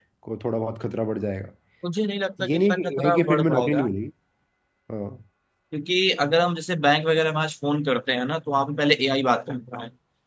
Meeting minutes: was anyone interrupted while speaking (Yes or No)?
Yes